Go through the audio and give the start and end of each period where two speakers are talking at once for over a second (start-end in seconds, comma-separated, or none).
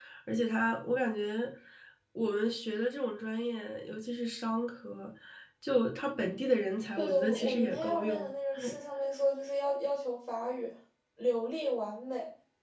7.0-8.3